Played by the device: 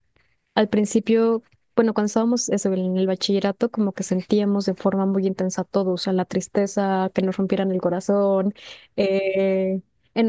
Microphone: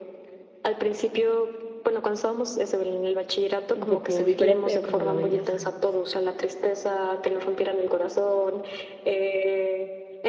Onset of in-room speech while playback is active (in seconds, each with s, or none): 3.7 s